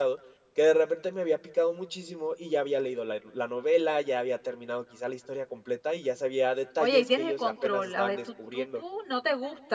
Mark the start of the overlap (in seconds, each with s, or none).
6.8 s